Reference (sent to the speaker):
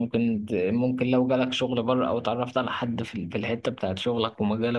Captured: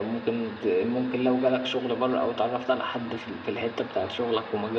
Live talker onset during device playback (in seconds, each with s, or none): none